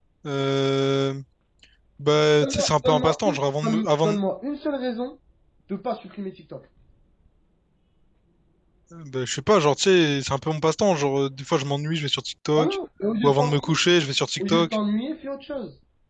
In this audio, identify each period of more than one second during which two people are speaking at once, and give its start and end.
2.4-4.2

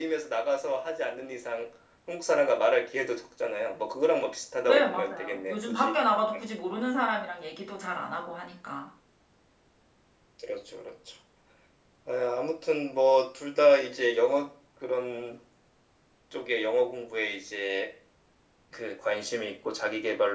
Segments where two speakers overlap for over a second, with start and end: 4.7-5.9

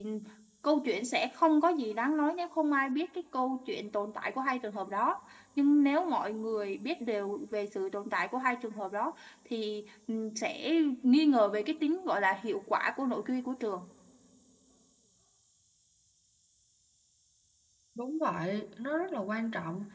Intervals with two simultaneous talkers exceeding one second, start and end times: none

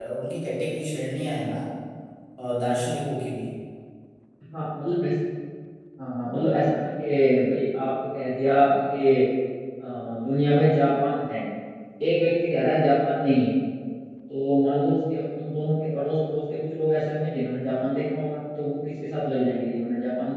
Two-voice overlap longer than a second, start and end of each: none

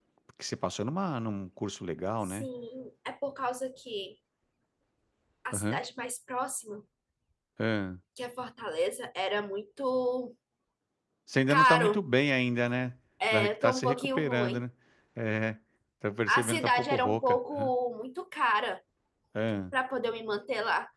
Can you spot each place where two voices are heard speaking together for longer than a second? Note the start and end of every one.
13.3-14.6, 16.3-17.7

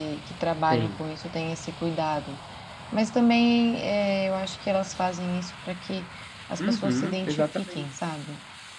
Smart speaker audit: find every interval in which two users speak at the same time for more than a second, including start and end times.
6.6-7.9

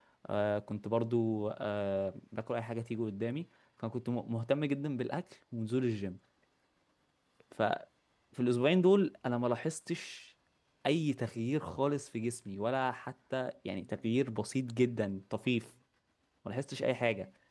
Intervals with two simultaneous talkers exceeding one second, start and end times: none

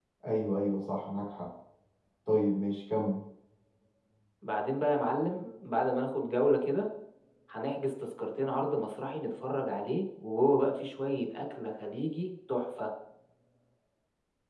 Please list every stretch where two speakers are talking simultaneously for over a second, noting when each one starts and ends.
none

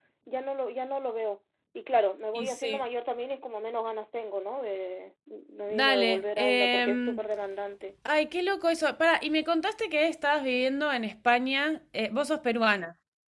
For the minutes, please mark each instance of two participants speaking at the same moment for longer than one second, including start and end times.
5.7-7.2

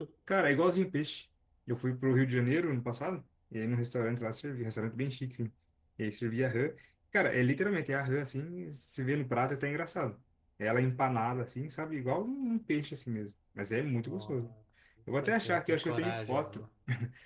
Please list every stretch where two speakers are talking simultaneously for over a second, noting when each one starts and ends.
15.2-16.6

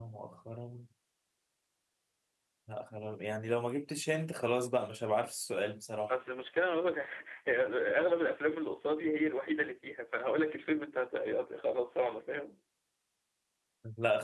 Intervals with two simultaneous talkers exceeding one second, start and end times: none

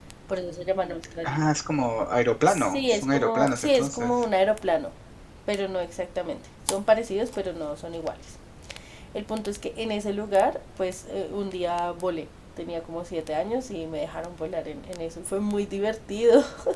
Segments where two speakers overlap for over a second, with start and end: 2.5-4.2

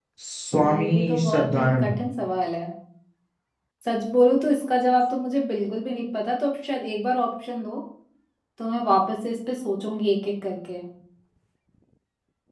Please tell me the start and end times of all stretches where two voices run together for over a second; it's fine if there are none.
0.6-2.0

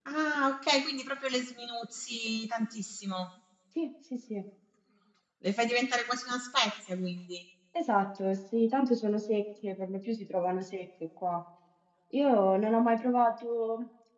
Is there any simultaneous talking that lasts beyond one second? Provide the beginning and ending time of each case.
none

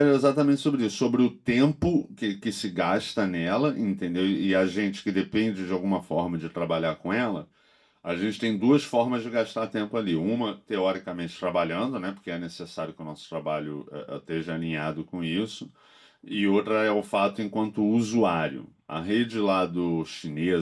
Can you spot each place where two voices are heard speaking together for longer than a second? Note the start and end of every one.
none

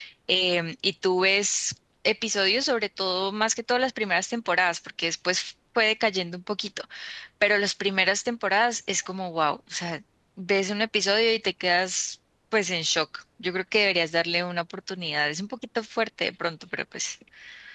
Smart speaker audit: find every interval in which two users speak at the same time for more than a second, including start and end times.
none

